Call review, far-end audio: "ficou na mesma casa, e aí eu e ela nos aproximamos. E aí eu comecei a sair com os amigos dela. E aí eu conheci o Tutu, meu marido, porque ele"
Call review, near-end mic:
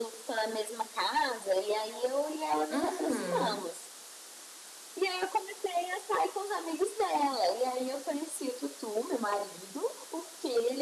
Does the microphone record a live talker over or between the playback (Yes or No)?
Yes